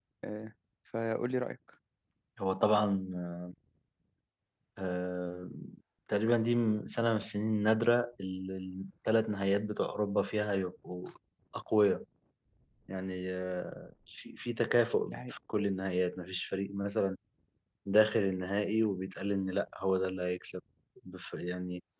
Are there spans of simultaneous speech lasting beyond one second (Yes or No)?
No